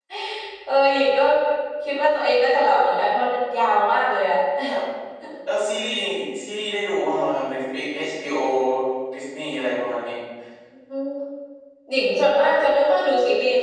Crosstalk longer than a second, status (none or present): none